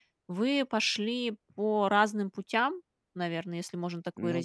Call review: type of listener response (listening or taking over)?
listening